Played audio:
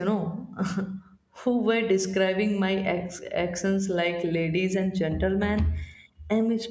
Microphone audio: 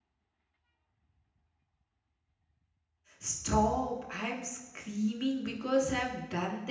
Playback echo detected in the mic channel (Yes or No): No